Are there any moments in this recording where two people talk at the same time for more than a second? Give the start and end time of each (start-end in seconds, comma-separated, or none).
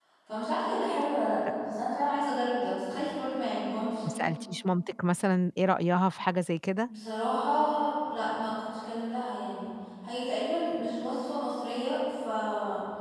none